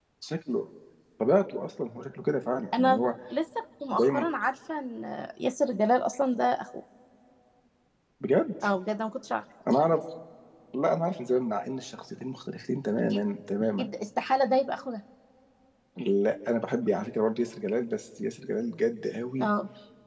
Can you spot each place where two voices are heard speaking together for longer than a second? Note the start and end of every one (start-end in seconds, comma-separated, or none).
none